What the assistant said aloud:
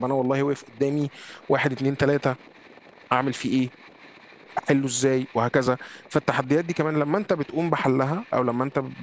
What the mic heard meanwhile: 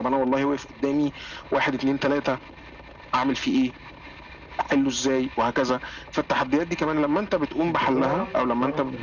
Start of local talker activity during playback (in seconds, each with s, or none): 7.7 s